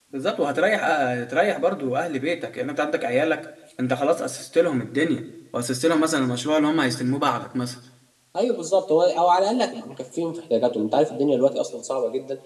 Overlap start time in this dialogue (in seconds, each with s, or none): none